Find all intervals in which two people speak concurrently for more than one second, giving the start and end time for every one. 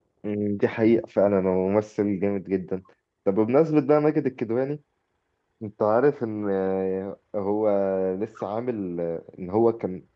none

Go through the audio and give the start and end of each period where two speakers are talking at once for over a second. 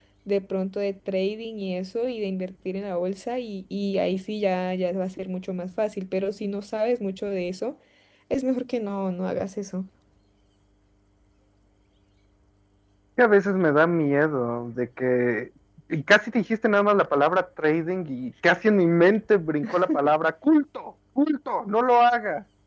none

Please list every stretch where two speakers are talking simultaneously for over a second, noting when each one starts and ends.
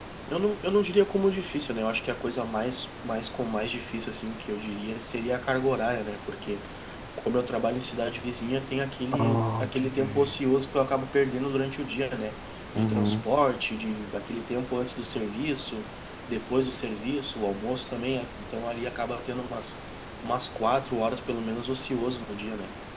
9.1-10.3

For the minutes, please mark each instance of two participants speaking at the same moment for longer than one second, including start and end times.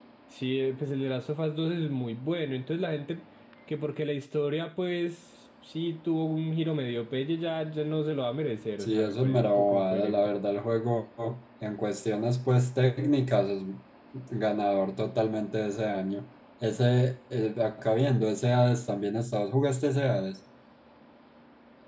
8.8-10.2

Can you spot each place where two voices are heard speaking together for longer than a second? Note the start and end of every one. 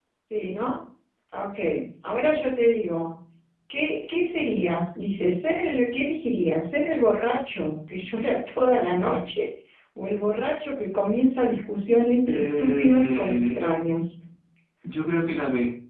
12.3-13.6

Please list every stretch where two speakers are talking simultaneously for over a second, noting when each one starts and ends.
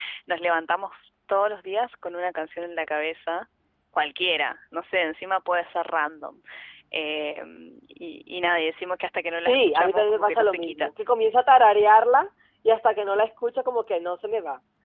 9.5-10.9

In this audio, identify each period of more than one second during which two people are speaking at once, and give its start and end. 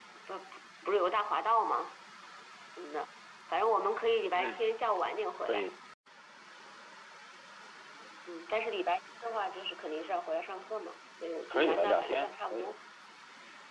11.5-12.7

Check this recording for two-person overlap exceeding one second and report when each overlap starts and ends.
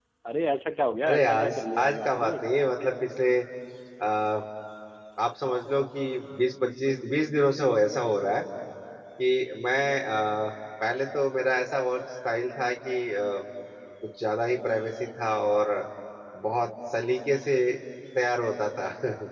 1.1-2.3

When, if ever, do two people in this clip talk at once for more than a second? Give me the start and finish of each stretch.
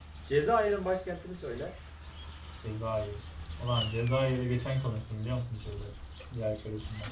none

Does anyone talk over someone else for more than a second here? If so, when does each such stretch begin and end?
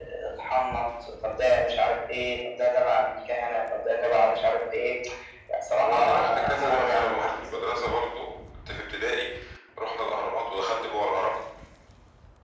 5.8-7.8

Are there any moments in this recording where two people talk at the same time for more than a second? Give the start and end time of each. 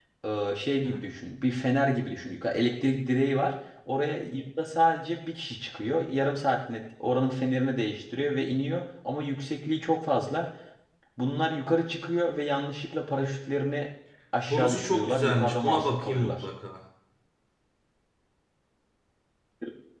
14.5-16.4

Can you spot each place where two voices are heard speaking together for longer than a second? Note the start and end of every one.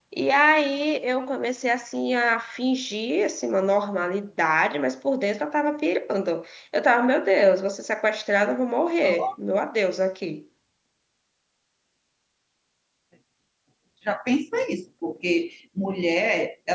none

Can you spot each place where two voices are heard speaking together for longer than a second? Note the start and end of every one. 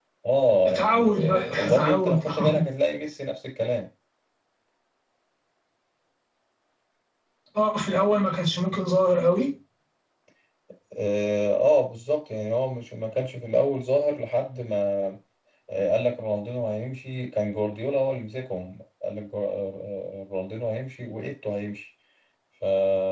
0.7-2.5

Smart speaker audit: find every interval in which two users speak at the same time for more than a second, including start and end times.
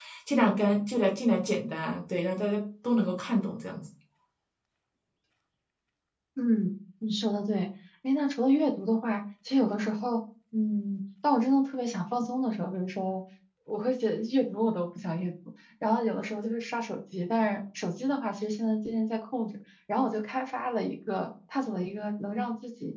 none

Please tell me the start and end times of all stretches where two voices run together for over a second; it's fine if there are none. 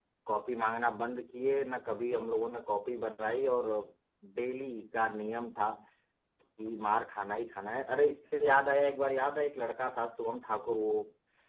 none

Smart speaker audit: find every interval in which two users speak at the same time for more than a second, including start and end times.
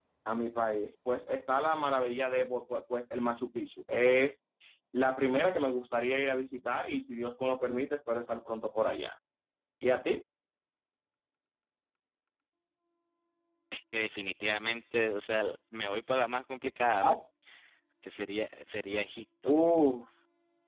none

